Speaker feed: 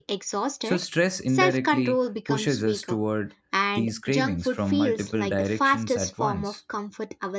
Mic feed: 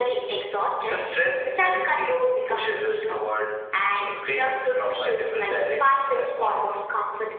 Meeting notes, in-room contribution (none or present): none